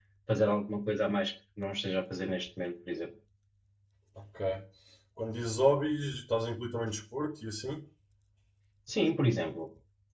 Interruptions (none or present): none